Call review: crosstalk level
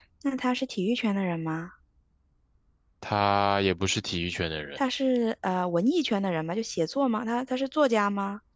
none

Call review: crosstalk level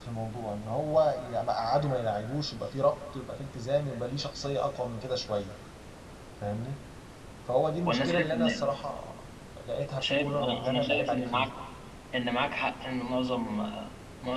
present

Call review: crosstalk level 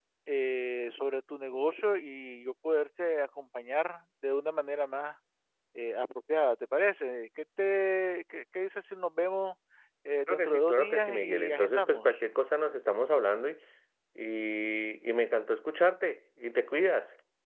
present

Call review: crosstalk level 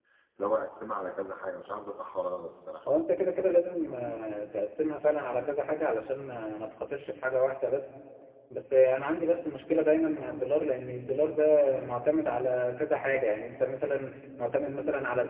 none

